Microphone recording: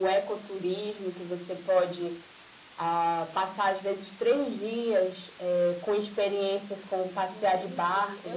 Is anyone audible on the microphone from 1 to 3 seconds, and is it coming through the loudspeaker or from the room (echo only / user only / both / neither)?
echo only